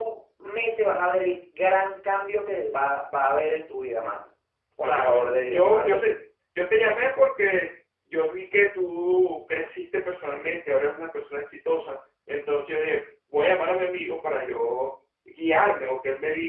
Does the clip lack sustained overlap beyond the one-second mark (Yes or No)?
No